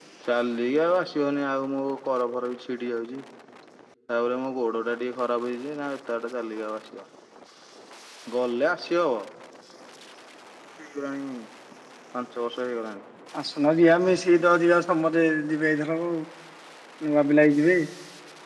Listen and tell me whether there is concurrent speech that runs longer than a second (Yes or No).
No